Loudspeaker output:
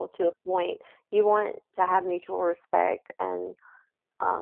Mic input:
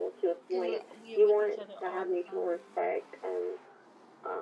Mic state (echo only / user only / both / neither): both